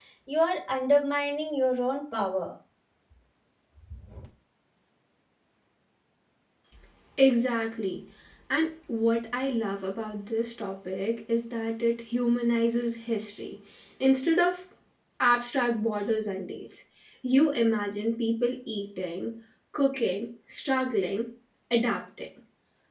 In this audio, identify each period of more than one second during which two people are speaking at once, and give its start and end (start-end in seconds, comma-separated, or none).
none